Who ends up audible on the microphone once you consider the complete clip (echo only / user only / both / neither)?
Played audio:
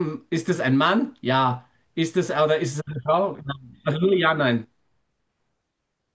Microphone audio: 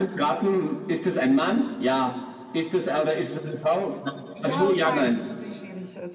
both